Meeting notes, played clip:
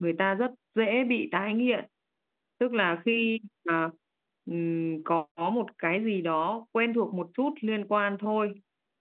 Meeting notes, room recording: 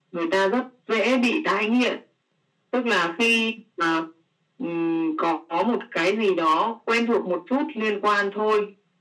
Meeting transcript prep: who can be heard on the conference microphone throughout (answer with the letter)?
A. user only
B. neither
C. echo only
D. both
C